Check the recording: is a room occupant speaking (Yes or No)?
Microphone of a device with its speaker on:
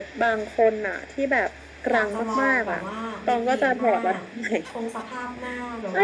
Yes